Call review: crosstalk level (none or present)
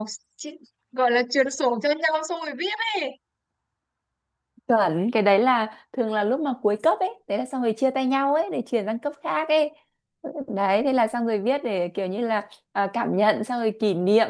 none